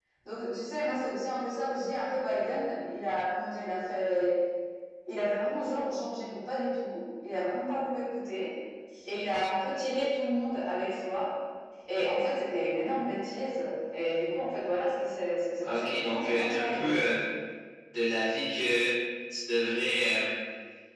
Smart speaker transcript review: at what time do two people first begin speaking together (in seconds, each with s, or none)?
15.6 s